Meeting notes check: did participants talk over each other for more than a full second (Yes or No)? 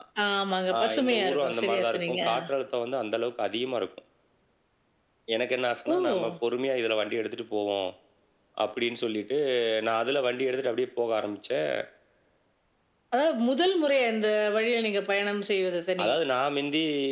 Yes